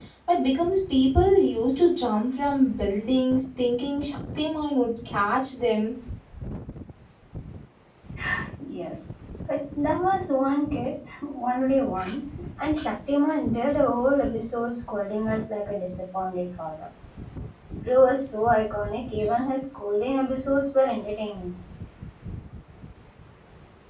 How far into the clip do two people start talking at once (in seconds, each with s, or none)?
none